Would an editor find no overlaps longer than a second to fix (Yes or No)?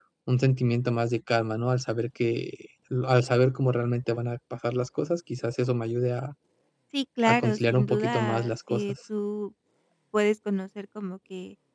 No